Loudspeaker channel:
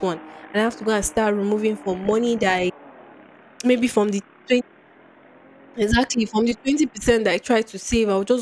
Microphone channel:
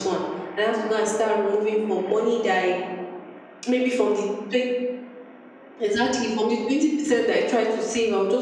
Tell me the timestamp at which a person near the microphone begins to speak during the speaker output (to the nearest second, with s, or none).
none